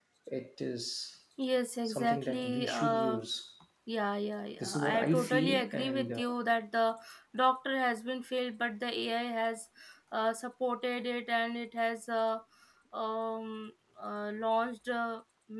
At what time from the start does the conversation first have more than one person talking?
2 s

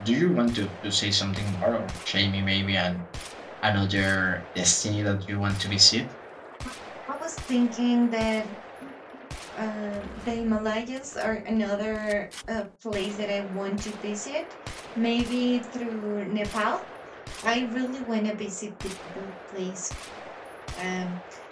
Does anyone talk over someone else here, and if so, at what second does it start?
none

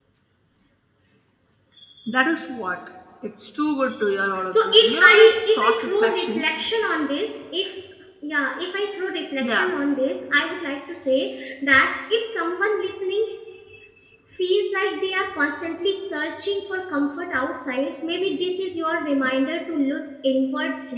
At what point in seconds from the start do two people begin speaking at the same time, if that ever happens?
5 s

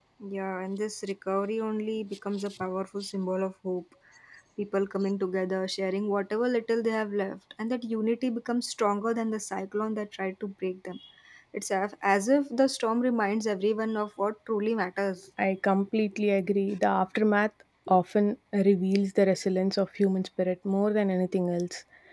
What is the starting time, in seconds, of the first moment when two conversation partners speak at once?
none

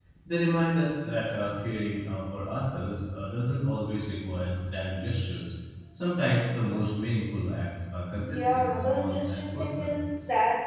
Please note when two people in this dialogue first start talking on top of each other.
8 s

